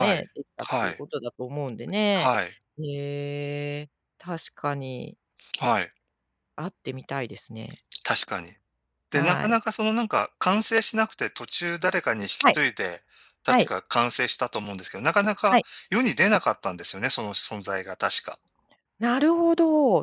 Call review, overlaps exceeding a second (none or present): none